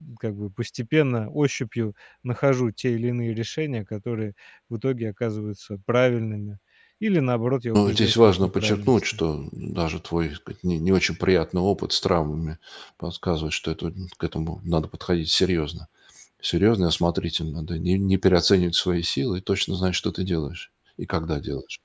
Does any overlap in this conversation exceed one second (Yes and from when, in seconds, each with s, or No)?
Yes, from 7.7 s